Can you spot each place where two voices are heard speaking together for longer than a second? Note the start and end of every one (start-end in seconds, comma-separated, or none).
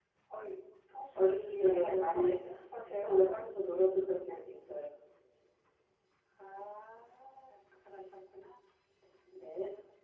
1.1-2.3